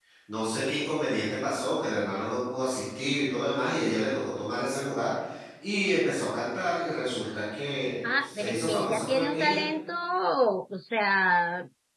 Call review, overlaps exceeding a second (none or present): present